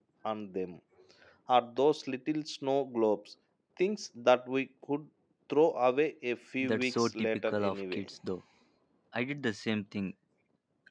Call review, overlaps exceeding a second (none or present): present